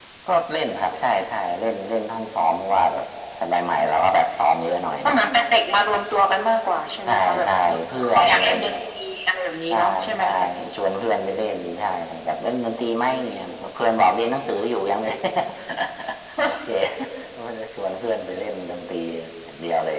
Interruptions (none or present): present